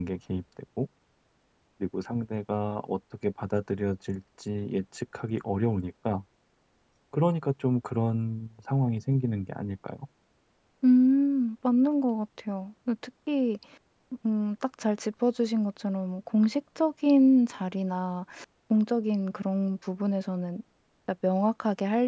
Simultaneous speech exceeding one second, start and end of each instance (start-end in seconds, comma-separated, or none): none